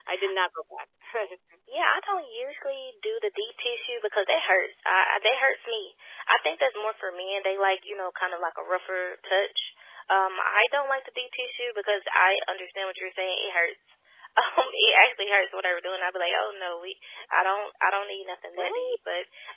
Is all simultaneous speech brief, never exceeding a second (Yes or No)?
Yes